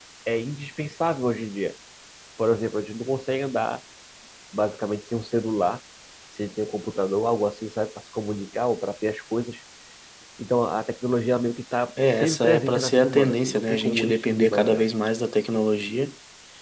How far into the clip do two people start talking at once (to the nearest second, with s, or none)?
12 s